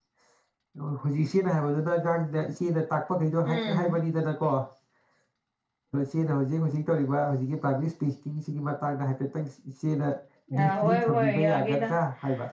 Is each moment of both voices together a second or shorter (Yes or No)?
No